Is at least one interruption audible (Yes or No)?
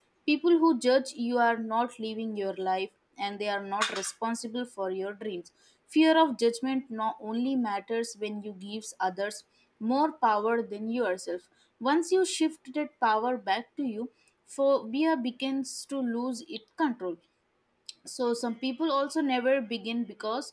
No